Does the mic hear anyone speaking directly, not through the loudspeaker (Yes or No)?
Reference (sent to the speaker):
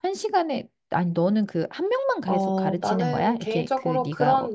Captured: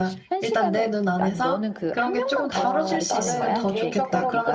Yes